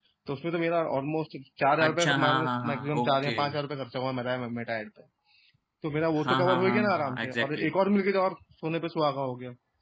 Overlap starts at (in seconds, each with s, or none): 1.8 s